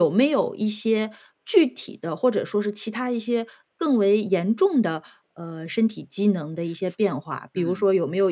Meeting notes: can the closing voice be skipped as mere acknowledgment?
Yes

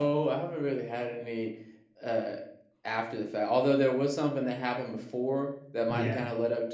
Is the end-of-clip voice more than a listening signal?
No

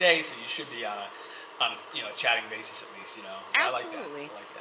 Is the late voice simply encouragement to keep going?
No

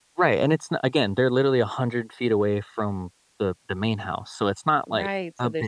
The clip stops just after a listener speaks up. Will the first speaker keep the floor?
No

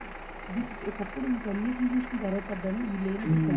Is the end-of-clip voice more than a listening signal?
Yes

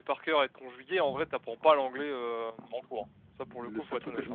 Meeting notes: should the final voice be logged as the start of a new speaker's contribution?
Yes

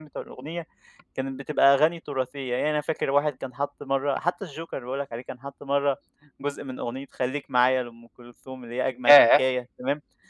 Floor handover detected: No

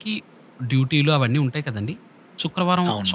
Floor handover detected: No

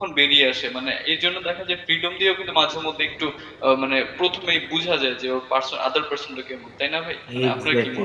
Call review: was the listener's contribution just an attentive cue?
No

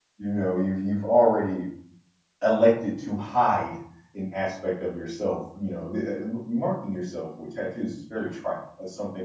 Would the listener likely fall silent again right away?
Yes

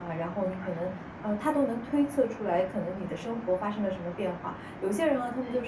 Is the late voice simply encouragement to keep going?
Yes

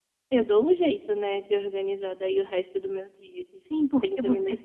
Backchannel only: No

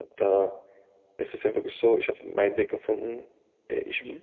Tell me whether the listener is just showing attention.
Yes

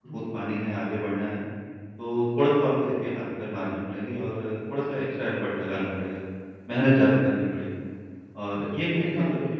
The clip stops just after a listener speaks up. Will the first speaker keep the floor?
Yes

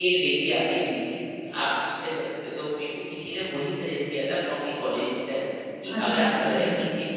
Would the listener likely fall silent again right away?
Yes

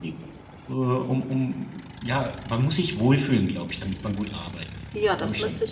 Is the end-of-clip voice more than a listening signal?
Yes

